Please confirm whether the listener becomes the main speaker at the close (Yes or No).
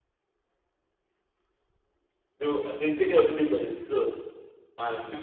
No